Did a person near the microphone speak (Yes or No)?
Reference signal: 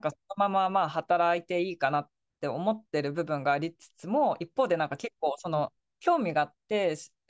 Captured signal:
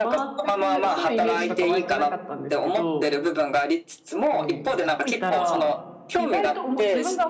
Yes